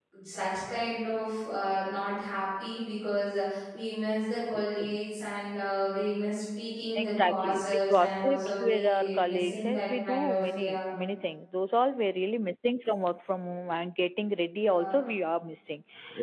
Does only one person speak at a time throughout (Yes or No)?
No